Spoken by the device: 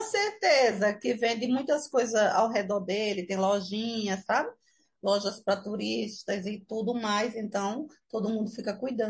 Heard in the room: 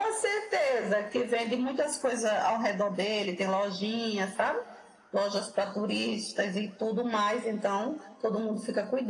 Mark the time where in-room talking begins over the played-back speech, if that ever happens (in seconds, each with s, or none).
none